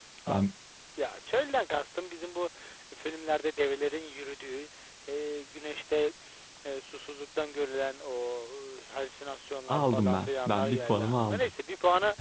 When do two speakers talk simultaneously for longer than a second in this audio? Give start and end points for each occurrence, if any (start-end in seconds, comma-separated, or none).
9.7-11.5